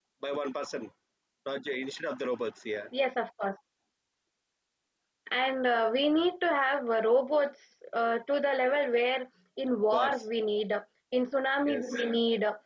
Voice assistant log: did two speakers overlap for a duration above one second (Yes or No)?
No